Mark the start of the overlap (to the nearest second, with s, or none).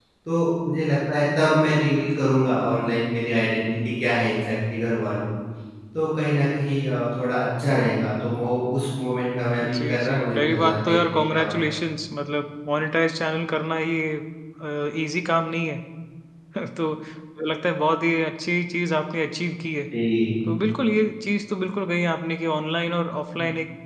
10 s